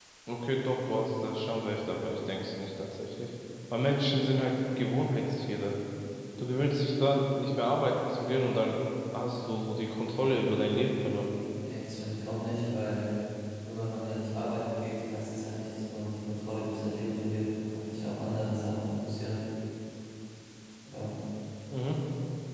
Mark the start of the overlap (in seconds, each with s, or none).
none